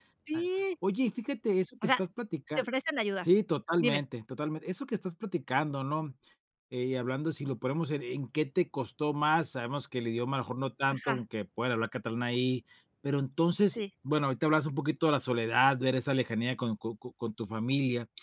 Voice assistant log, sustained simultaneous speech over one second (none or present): none